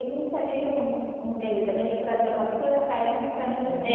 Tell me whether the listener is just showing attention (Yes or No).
No